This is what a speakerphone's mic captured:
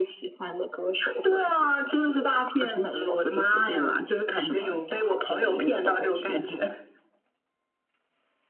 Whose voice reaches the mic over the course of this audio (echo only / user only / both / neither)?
echo only